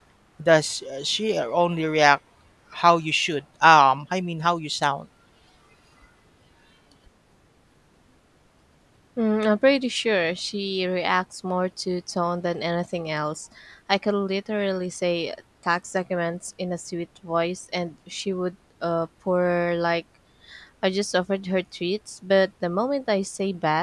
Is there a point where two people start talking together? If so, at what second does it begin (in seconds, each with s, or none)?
none